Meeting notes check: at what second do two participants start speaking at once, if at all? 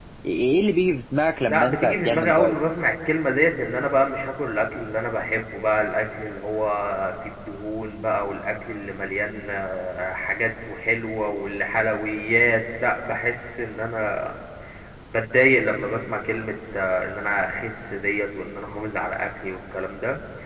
1.5 s

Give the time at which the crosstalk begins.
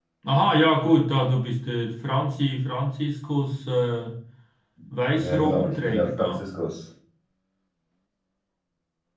5.1 s

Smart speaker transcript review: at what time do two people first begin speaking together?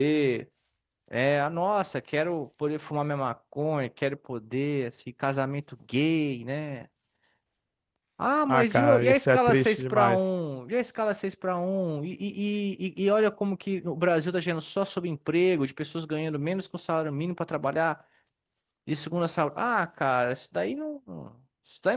8.4 s

